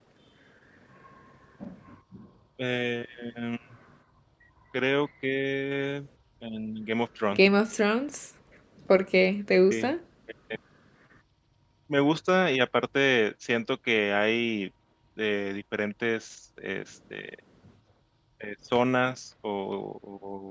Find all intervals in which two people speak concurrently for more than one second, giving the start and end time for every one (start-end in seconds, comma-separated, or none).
none